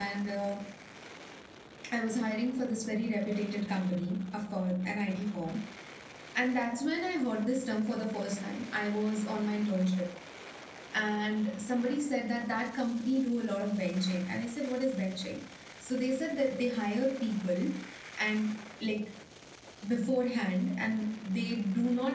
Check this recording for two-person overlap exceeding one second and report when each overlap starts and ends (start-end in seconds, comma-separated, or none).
none